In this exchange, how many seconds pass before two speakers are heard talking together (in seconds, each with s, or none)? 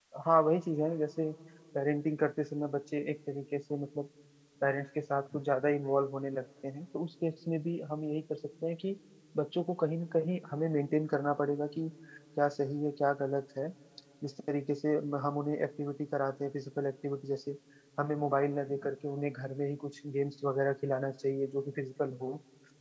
none